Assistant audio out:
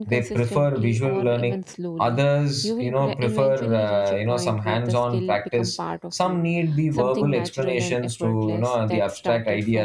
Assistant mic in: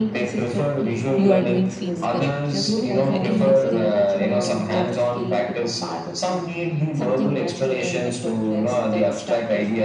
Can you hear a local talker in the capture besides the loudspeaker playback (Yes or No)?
Yes